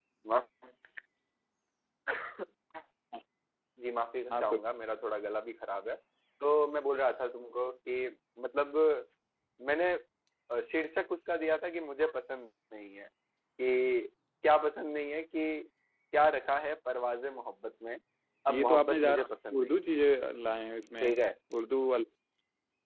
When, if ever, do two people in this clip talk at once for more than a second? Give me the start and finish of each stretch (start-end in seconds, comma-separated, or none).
18.5-19.8